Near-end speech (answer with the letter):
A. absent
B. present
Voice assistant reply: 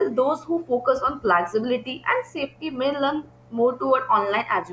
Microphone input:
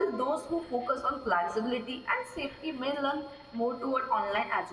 A